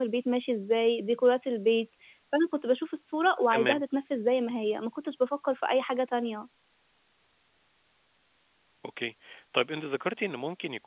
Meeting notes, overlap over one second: none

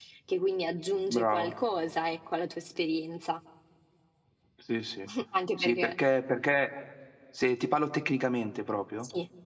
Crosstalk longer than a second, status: none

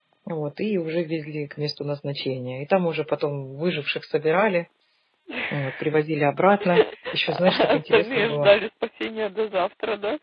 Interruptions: present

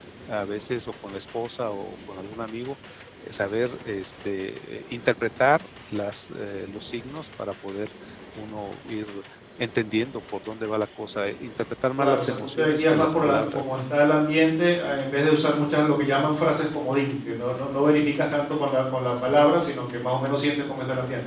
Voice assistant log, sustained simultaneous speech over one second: present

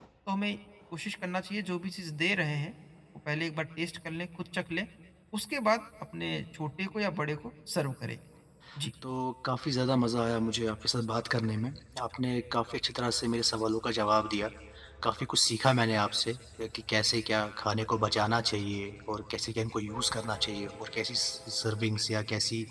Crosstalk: none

